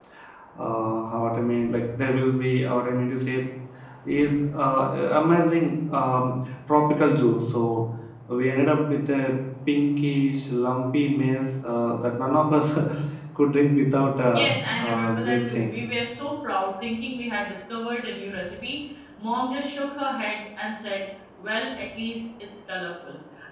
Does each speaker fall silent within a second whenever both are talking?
No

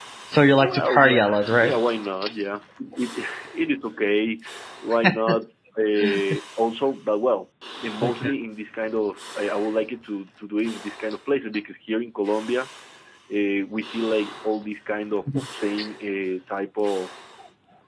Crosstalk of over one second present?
Yes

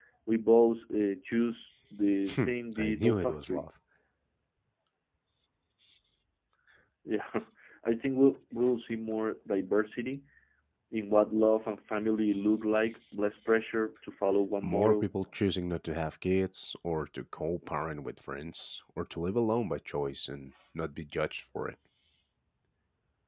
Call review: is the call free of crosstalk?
No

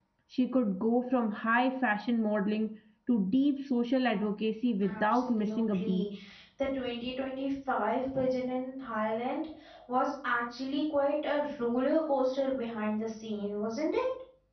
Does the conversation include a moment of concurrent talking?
Yes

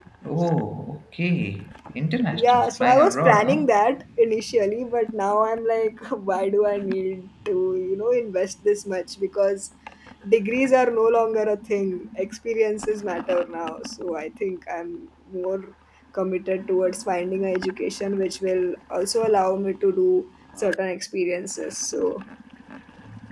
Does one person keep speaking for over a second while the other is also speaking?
Yes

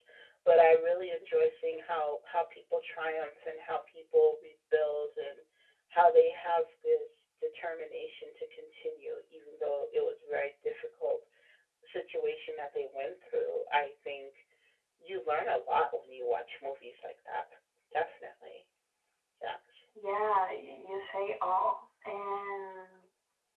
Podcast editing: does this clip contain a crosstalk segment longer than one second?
No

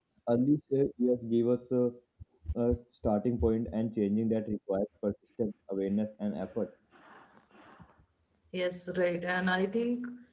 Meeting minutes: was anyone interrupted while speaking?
No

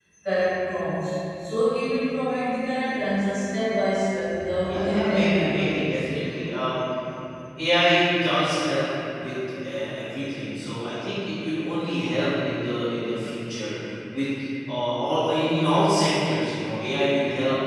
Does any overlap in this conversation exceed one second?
Yes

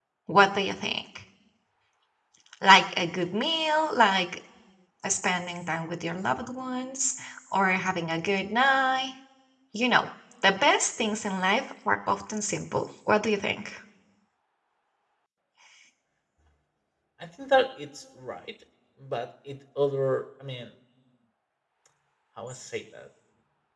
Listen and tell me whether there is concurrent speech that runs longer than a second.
No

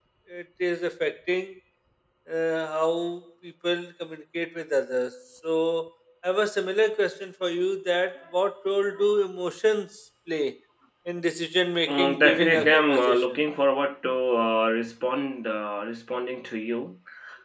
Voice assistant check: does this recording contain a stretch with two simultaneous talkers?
Yes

